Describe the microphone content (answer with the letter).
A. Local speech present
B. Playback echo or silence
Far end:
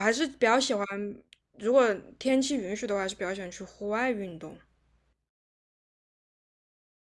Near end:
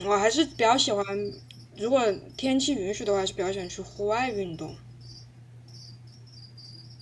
B